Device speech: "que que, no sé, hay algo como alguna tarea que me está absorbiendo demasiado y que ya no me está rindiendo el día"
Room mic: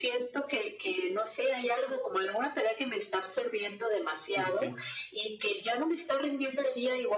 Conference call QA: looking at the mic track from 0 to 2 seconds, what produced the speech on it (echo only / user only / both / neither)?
echo only